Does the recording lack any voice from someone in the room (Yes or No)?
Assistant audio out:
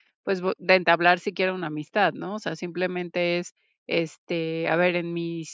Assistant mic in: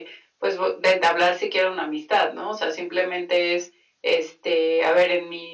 Yes